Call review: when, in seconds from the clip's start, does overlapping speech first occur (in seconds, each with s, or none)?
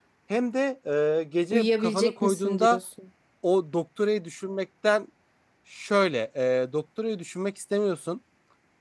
1.5 s